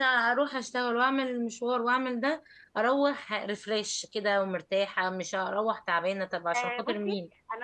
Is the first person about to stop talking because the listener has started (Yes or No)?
Yes